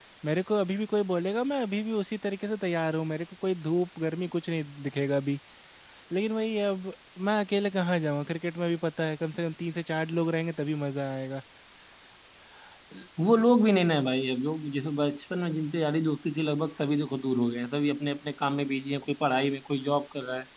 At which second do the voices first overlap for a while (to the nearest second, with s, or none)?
none